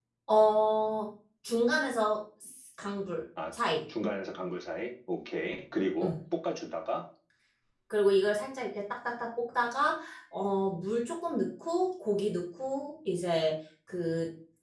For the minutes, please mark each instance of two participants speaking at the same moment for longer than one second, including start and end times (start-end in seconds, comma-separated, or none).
none